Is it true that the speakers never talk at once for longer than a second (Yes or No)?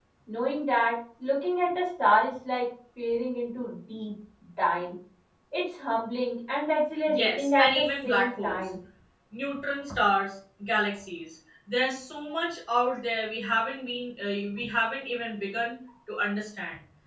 No